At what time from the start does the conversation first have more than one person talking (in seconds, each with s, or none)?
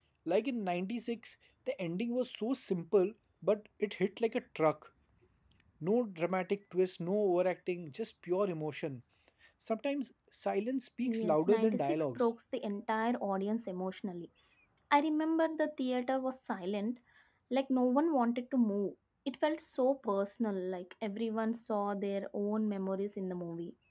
11.0 s